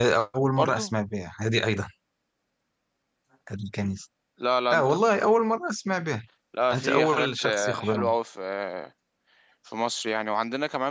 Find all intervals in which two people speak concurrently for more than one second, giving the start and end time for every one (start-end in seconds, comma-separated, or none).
6.7-8.1